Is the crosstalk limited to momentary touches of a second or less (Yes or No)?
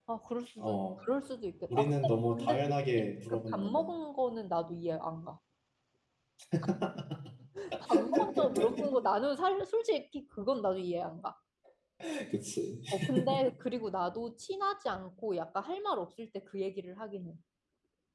No